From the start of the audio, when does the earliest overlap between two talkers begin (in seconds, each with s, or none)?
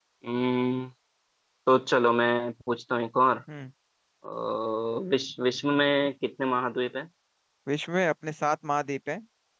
none